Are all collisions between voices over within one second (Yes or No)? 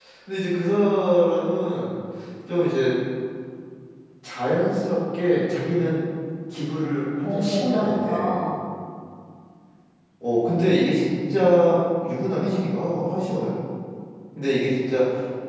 No